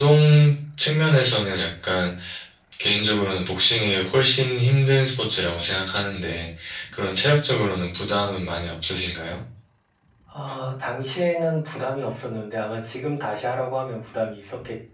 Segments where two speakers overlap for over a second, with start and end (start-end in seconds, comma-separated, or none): none